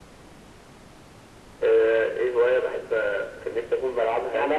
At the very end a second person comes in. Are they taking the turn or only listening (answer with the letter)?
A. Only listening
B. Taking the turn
B